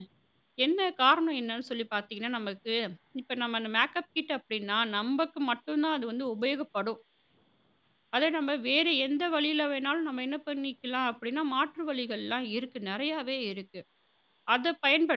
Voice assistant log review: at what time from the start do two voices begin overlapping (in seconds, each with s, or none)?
none